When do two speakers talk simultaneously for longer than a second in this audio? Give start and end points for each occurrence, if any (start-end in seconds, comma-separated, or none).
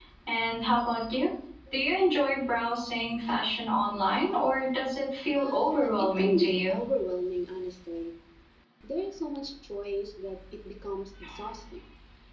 5.3-6.8